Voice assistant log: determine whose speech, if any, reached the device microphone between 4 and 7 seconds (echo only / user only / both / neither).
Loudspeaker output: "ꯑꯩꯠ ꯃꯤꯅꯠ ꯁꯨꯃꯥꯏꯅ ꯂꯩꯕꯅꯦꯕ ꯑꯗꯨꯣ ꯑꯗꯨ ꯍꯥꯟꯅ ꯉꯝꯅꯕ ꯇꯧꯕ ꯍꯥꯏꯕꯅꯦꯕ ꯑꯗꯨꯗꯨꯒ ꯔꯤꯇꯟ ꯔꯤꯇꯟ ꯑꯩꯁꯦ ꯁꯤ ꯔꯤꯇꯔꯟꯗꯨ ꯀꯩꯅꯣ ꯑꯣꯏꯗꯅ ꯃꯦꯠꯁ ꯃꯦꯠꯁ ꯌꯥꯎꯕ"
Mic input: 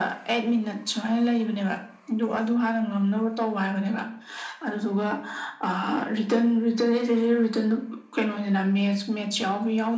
echo only